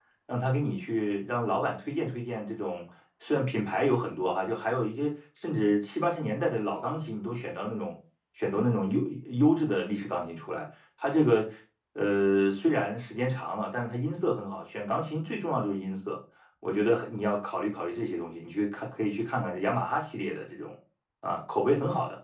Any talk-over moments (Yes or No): No